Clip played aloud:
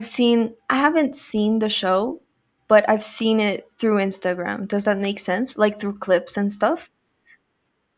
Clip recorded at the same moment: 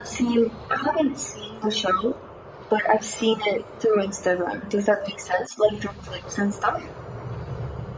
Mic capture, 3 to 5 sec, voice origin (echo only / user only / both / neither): echo only